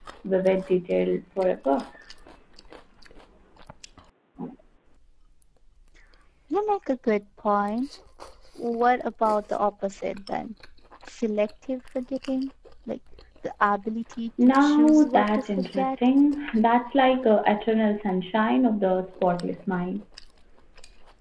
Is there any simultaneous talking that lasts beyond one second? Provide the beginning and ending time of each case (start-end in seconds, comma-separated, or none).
14.4-16.0